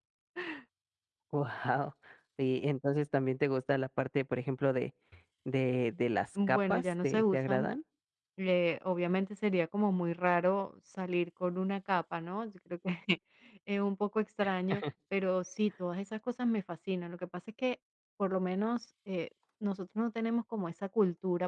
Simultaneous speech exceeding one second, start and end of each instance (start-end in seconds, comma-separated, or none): 6.5-7.7